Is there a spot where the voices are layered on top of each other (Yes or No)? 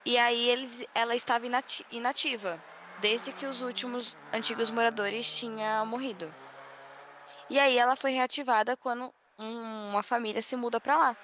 No